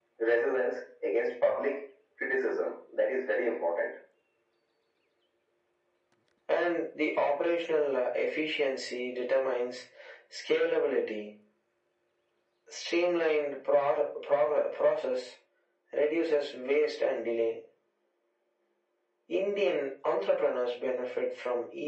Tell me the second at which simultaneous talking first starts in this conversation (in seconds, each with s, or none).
none